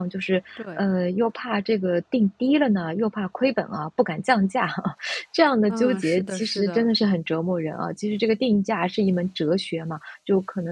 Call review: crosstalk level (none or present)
present